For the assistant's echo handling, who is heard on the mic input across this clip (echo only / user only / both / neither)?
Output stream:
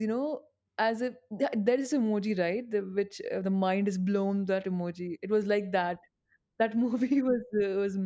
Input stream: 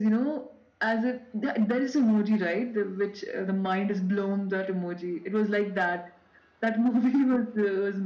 echo only